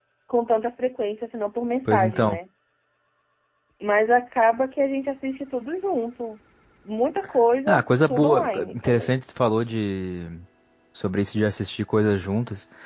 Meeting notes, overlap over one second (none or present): present